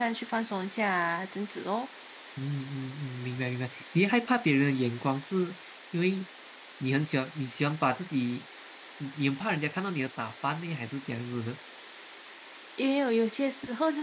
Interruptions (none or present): none